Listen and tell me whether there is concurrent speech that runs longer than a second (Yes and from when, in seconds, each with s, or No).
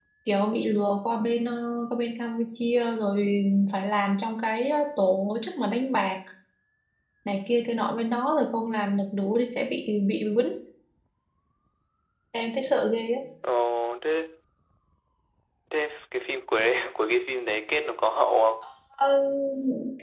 No